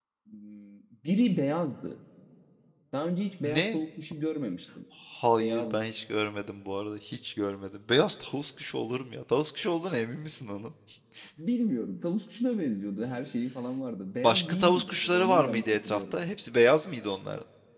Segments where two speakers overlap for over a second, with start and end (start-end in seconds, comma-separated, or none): 14.2-16.1